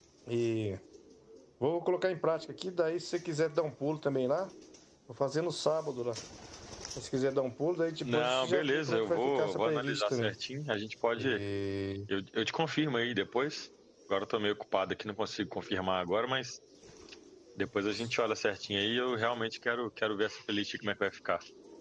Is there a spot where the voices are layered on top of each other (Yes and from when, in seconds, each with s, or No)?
Yes, from 8.0 s